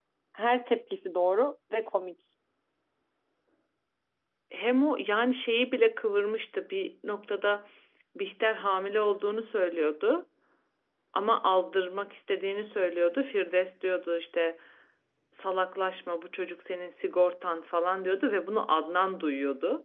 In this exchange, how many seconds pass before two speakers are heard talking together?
none

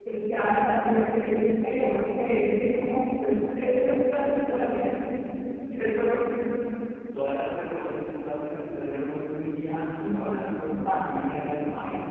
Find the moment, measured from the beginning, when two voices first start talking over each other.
9.7 s

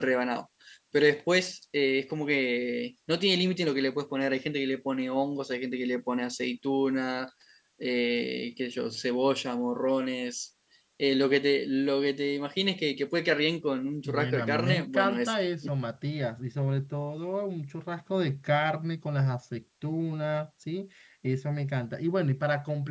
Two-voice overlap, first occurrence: 14.0 s

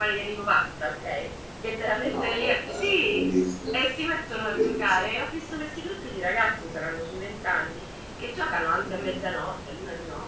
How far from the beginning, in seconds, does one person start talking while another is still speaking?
2.0 s

